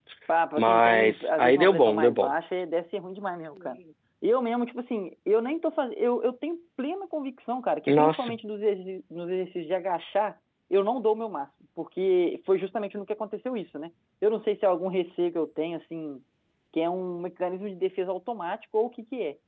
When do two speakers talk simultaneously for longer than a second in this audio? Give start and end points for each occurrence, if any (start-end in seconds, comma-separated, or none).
0.6-2.3